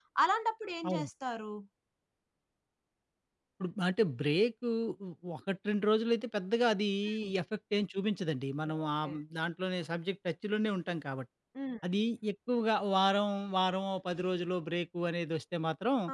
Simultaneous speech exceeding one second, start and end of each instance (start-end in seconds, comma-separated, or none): none